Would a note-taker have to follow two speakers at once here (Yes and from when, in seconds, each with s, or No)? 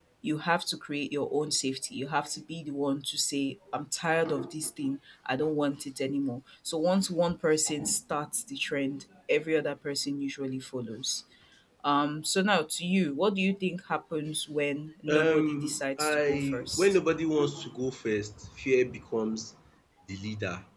Yes, from 15.1 s